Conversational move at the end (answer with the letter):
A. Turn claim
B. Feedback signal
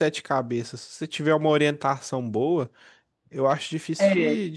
B